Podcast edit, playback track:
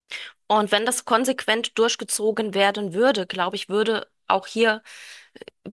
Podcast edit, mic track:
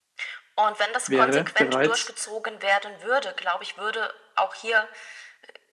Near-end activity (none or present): present